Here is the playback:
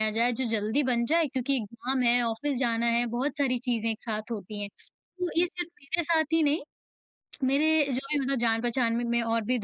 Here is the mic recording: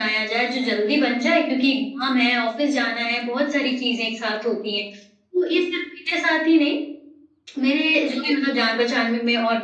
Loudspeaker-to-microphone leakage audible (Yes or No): Yes